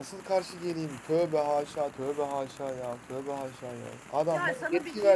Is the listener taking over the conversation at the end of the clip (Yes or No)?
Yes